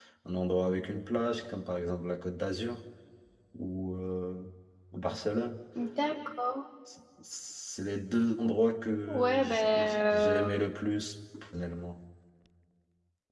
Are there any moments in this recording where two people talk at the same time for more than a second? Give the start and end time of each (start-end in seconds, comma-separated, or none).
9.1-10.4